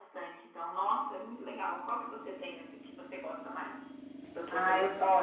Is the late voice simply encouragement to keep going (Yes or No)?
No